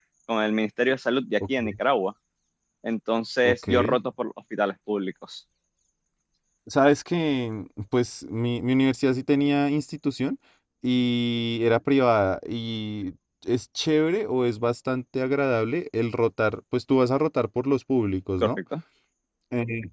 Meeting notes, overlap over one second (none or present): none